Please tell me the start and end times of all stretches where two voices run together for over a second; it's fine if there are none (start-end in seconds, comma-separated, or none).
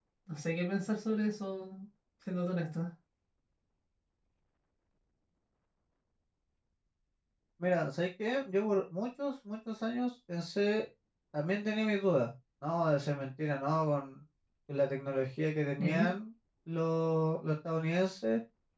none